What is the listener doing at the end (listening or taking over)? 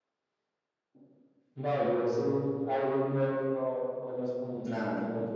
listening